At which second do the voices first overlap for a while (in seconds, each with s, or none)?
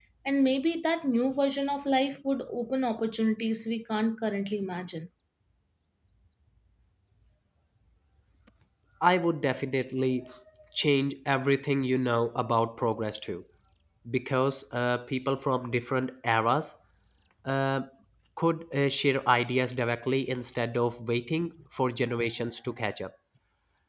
none